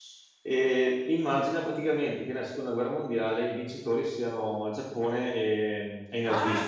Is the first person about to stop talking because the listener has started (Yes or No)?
Yes